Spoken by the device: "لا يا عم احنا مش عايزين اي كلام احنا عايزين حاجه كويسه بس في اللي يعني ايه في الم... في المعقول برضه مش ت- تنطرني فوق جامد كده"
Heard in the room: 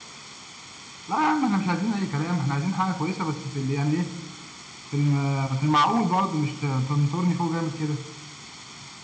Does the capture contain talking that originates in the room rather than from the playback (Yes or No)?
No